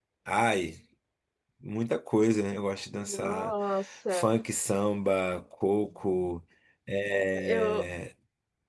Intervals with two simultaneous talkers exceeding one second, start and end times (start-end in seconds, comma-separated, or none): none